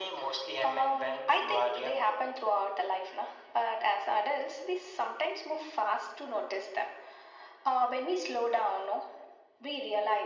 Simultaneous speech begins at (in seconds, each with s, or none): 0.6 s